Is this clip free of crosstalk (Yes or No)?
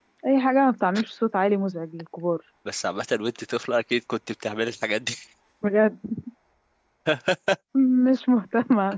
Yes